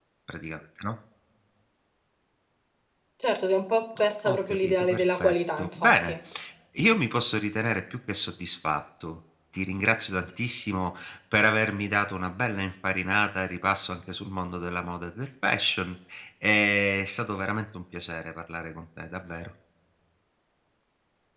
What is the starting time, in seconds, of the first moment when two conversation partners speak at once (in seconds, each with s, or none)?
4.0 s